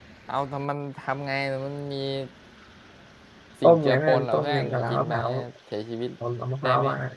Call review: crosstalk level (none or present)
present